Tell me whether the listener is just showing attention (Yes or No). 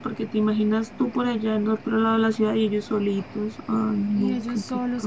No